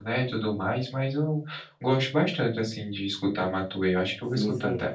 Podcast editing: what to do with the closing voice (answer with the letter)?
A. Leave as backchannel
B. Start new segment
B